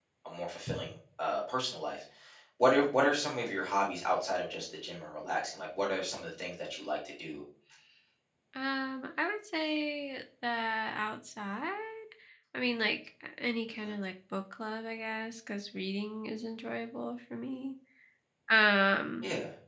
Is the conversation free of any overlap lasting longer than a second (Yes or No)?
Yes